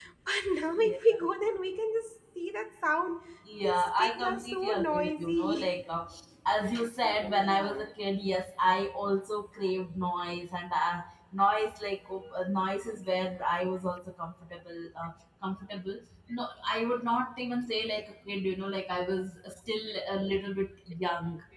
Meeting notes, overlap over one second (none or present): present